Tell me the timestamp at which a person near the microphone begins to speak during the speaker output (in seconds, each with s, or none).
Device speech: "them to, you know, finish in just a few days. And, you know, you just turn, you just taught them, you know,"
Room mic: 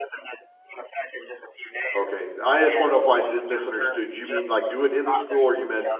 1.9 s